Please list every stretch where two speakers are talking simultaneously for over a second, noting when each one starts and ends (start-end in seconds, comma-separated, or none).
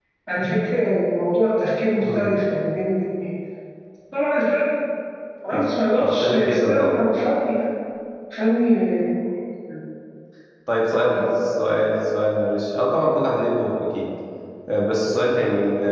5.5-7.0